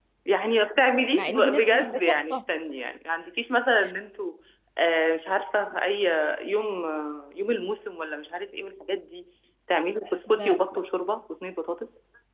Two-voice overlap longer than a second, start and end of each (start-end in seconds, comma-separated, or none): 1.2-2.4